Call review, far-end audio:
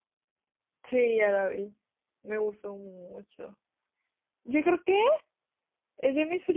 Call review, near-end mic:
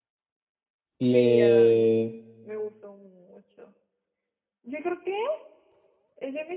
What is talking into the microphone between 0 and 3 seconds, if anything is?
both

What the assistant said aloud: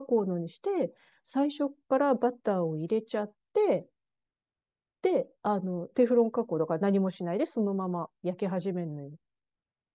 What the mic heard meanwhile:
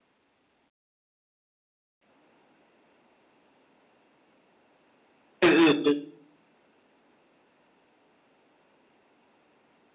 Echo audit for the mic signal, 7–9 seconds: neither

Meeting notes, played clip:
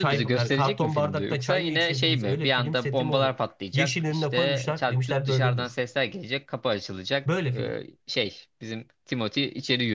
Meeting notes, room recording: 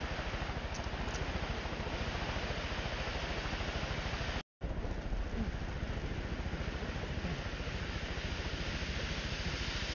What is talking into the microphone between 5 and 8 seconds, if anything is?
neither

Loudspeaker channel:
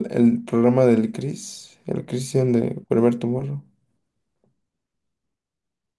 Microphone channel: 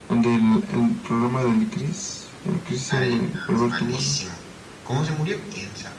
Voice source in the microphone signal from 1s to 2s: echo only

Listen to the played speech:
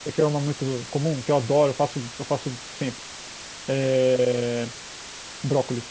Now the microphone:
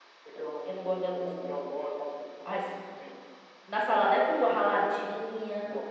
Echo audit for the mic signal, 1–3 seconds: both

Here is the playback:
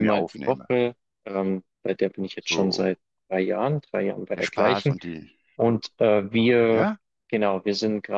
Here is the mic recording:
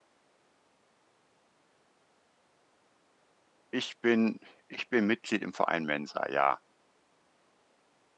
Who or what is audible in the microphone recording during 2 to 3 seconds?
neither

